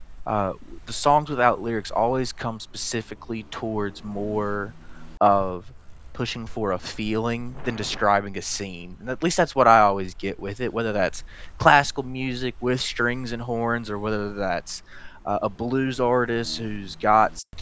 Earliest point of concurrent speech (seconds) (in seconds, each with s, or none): none